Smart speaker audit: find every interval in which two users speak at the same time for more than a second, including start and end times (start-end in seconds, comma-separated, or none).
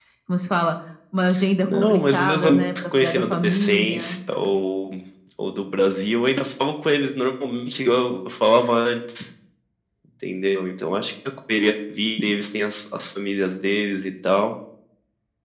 1.6-4.2